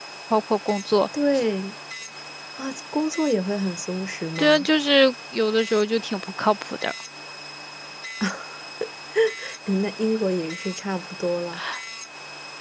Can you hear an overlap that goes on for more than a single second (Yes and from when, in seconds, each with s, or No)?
No